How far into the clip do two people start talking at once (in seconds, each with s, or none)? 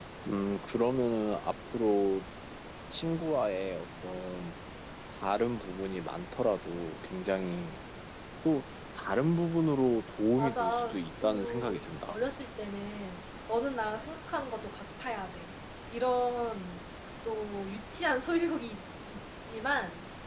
10.4 s